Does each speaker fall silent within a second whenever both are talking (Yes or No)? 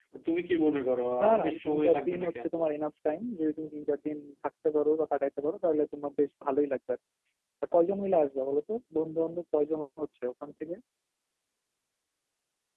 No